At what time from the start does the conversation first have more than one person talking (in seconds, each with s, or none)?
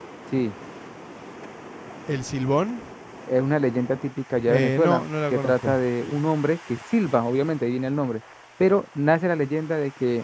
4.5 s